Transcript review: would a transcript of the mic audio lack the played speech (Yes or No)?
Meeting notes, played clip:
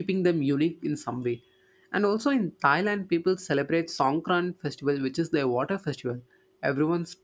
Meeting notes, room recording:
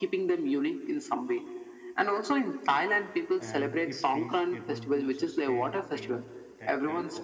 No